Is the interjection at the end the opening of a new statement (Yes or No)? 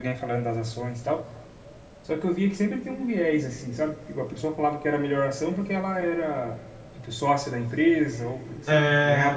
Yes